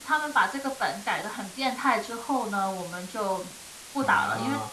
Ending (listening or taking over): listening